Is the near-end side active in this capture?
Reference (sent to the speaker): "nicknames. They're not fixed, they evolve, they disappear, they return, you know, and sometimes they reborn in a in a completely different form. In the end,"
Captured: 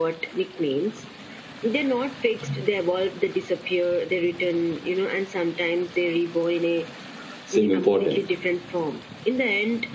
Yes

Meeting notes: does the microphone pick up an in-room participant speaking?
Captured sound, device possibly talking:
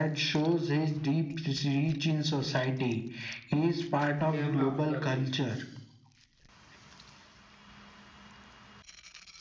Yes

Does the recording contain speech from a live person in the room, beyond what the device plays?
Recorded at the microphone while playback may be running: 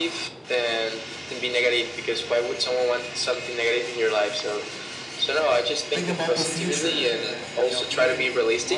Yes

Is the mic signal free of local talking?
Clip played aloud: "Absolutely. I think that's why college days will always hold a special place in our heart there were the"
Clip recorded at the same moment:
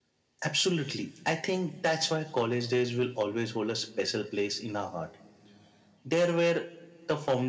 Yes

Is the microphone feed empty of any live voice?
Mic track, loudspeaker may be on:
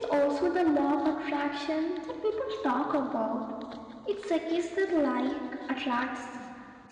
Yes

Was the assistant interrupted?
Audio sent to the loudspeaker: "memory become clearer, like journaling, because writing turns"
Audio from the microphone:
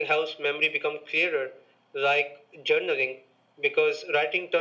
No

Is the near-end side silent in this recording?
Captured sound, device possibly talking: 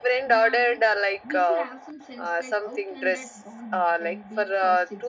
No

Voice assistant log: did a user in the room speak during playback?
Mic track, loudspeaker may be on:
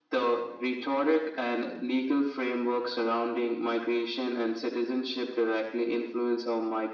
No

